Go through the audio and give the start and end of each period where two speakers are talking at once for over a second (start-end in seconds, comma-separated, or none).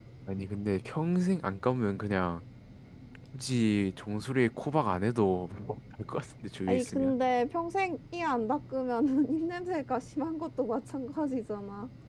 none